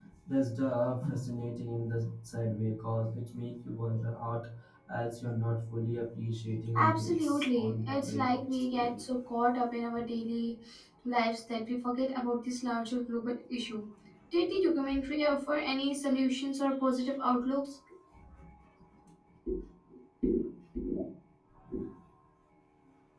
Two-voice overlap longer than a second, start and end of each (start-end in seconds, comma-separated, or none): 6.8-9.0